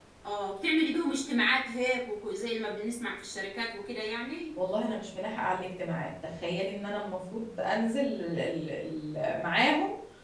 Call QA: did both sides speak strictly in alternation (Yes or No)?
Yes